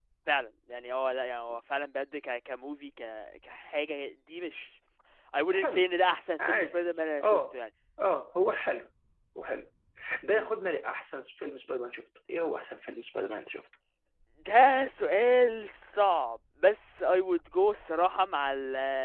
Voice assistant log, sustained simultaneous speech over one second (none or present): none